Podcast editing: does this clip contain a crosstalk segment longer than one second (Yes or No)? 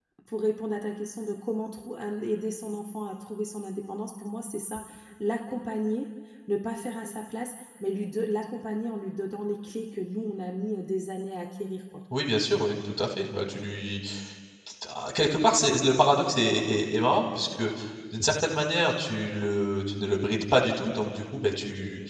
No